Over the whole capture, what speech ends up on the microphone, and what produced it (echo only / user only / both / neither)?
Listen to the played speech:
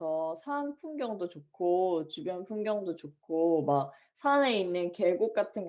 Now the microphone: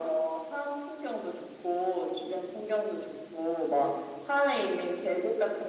echo only